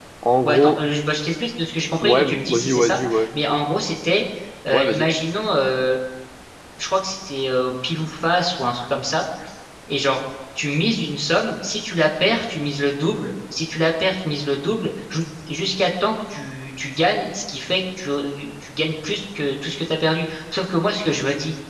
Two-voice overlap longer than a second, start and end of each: 2.0-3.3

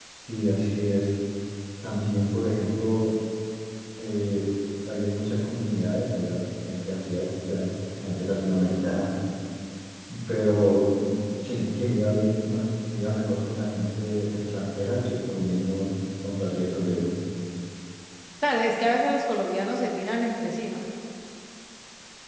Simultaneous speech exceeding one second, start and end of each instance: none

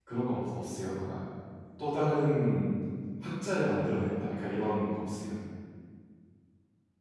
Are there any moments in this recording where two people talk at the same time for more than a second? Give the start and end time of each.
none

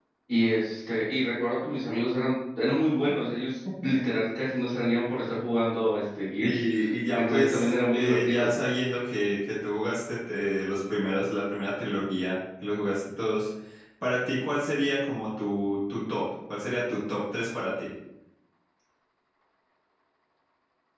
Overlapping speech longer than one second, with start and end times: 7.1-8.5

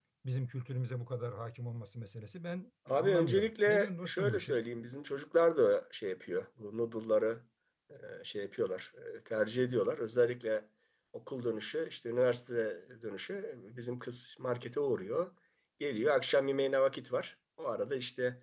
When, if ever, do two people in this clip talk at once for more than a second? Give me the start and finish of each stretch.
2.9-4.6

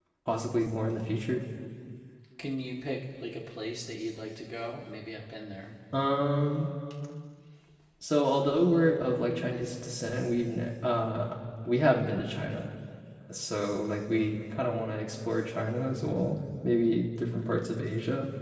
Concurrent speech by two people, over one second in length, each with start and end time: none

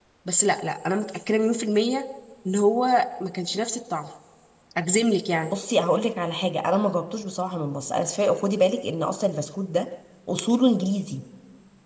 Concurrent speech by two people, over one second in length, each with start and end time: none

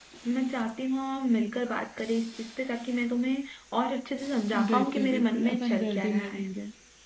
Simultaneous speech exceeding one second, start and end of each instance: 4.7-6.4

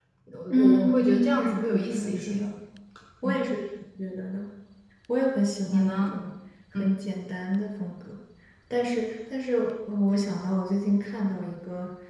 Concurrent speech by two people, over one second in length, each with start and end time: 0.5-2.4

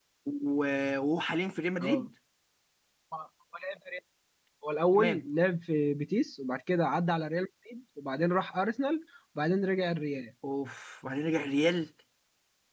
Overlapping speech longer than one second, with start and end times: none

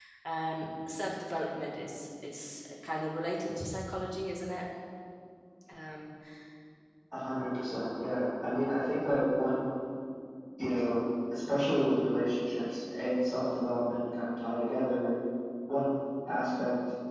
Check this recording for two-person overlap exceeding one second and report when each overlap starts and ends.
none

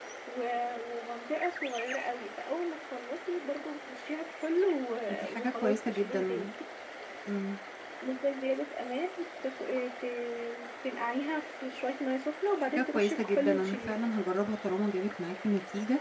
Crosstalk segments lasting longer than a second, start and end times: 5.1-6.5, 12.6-14.0

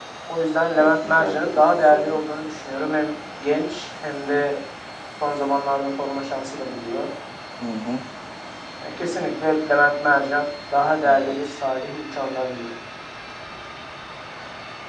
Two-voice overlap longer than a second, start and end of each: 0.8-2.2

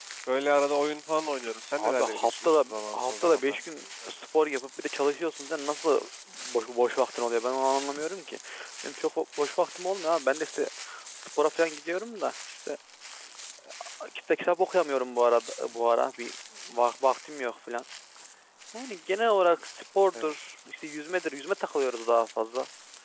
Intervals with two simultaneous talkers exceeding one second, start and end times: 1.9-3.6

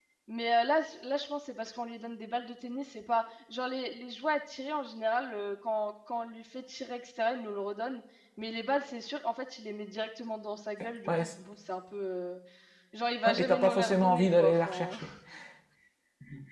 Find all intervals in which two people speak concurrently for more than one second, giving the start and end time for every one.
13.2-14.9

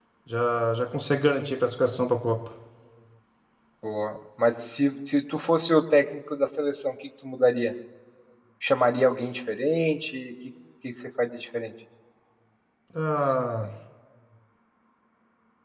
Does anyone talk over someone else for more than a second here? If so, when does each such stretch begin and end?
none

